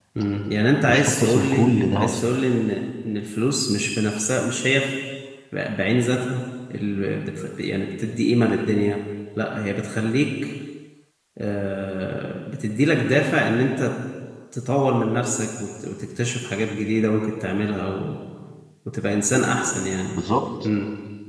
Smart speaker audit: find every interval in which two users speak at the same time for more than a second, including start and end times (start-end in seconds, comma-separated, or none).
0.9-2.2